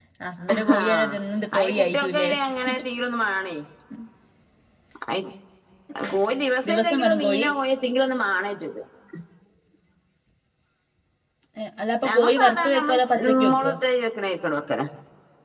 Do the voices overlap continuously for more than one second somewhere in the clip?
Yes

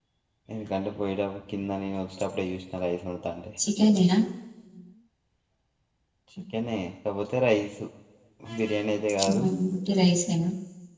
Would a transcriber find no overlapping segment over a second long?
Yes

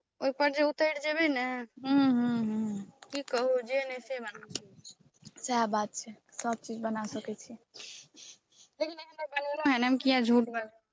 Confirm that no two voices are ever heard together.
Yes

